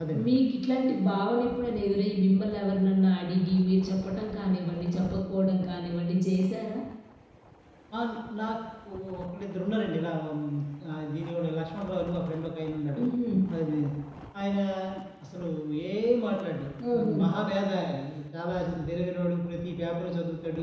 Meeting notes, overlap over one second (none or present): none